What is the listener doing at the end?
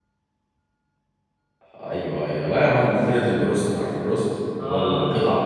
listening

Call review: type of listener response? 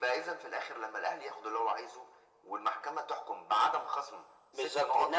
taking over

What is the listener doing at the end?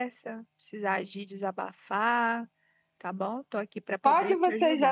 taking over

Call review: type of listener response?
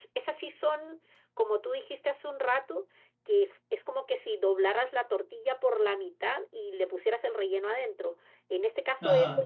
listening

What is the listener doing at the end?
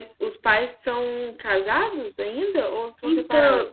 taking over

